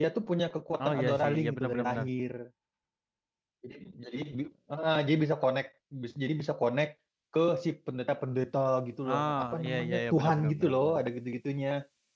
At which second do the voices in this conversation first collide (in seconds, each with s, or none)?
0.8 s